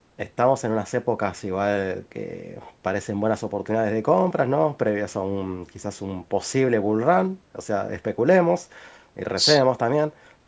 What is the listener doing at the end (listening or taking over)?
listening